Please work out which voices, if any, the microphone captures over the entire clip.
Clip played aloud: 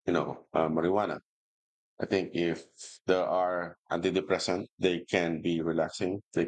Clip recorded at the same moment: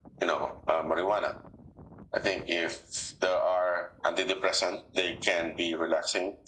echo only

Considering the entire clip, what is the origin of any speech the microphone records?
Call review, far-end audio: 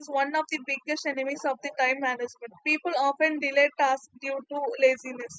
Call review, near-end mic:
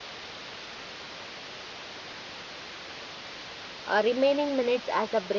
user only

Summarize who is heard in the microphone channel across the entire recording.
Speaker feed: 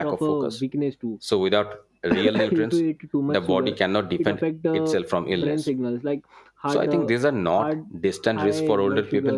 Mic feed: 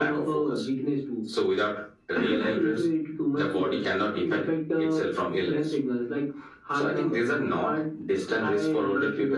echo only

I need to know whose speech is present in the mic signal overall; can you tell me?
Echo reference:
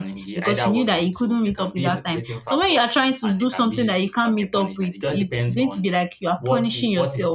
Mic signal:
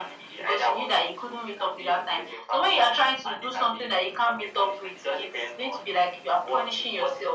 echo only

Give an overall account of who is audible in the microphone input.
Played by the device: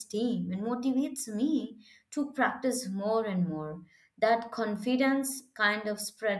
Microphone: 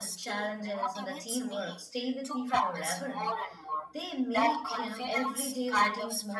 both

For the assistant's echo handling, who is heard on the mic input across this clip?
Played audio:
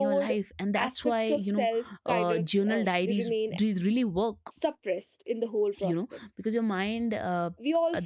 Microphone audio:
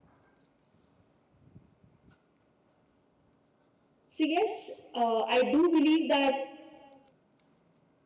user only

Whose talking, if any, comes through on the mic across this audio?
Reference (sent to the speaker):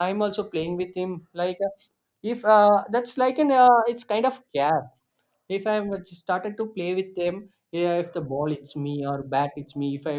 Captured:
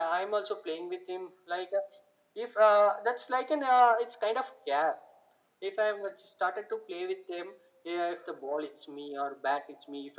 echo only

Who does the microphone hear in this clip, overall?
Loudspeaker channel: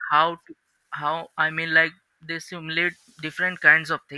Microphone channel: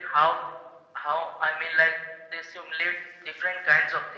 echo only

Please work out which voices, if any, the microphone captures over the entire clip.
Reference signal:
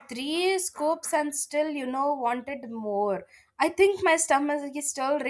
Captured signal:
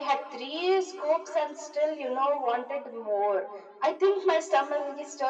echo only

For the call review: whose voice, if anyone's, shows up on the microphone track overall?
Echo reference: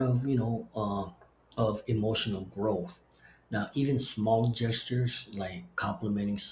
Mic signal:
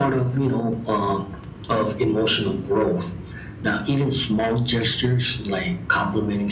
echo only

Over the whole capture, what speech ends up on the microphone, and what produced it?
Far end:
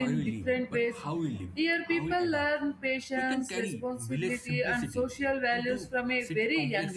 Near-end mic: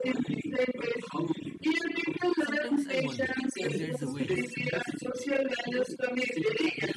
both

